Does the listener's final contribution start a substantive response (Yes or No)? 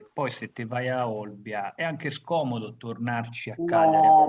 Yes